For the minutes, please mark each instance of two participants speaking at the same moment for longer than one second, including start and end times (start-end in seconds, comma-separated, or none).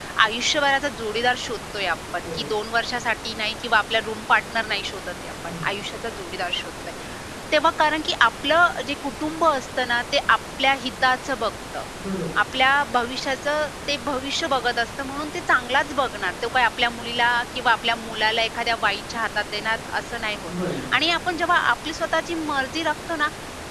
none